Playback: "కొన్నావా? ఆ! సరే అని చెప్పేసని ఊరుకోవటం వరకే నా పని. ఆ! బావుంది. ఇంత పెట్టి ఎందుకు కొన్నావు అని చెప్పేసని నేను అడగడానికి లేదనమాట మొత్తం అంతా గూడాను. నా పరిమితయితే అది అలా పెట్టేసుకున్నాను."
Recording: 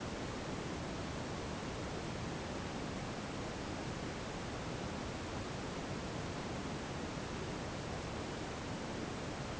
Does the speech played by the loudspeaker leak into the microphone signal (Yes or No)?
No